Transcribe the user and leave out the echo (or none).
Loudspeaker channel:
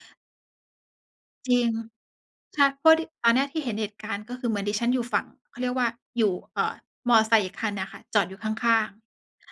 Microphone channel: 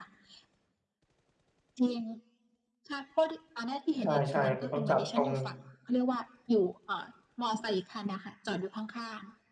ใช่ ๆ มันต้องจับตรง